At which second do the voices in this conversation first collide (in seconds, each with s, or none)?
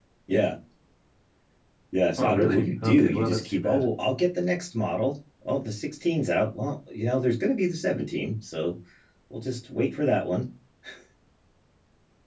2.2 s